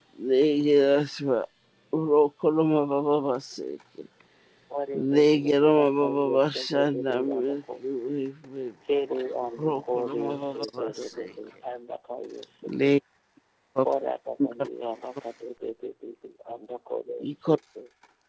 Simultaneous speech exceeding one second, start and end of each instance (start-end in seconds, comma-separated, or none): 4.9-7.5, 9.6-11.2